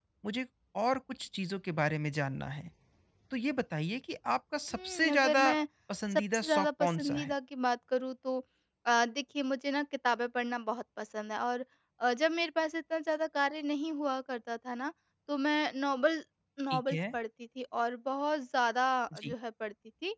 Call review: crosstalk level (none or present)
present